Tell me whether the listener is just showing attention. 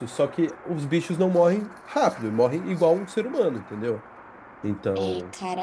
No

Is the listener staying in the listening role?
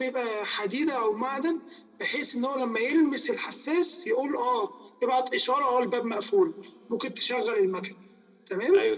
No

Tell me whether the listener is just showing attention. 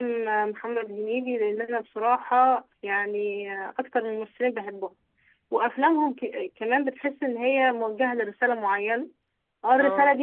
Yes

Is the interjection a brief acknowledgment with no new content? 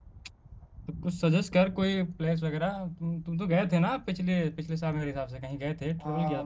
No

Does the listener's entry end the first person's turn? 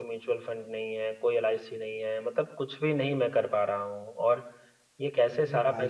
No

